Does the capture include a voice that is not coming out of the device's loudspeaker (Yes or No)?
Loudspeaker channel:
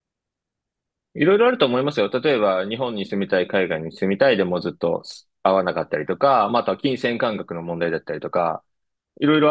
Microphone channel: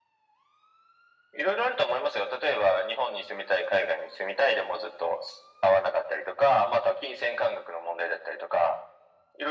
No